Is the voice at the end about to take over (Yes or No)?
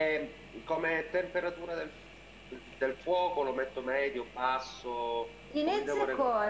Yes